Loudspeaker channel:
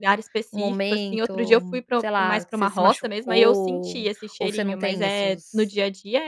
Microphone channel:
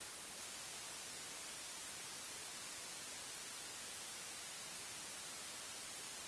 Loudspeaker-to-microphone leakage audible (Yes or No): No